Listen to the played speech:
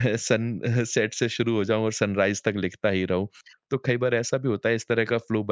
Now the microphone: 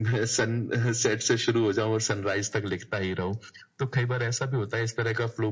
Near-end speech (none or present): none